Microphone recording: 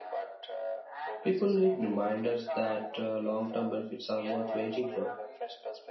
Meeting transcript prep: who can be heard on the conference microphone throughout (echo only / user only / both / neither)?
both